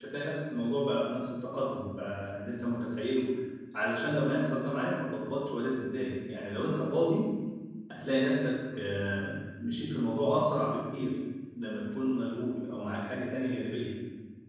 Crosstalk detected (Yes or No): No